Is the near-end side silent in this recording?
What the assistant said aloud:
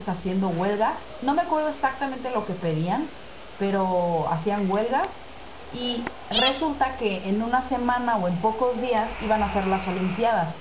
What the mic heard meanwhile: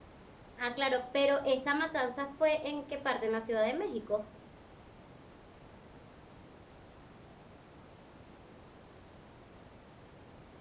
No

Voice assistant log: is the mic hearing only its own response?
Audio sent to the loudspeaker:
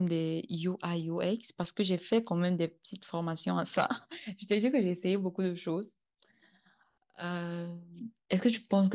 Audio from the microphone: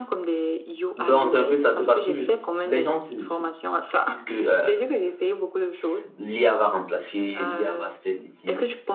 No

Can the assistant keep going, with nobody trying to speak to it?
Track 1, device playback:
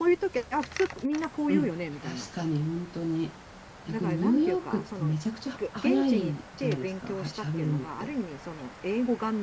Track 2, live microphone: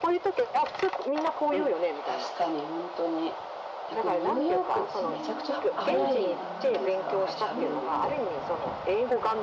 No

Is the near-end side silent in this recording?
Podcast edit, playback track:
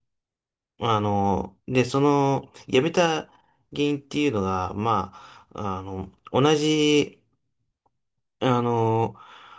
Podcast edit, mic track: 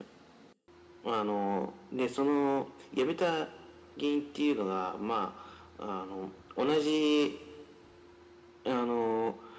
Yes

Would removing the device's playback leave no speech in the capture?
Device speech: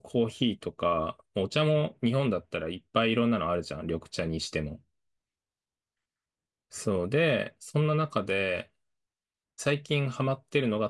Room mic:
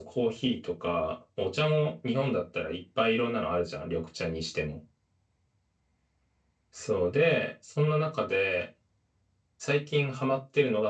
Yes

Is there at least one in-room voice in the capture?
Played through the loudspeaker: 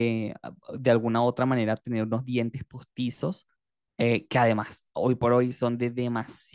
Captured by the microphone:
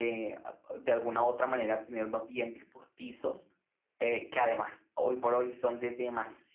No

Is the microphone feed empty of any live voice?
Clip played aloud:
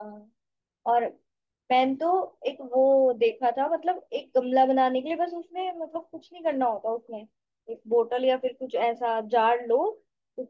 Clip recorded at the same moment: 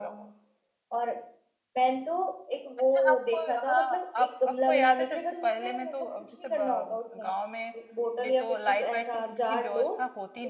No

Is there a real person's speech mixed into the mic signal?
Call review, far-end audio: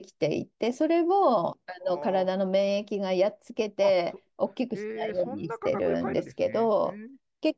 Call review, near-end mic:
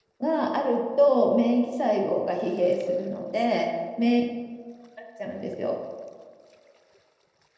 Yes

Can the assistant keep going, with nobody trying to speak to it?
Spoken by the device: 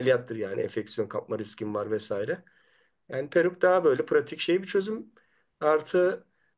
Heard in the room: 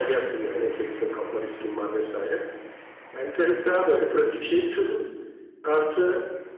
Yes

